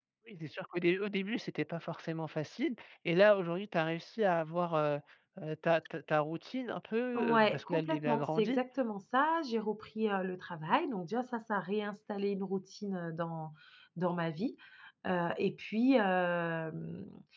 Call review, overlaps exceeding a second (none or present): present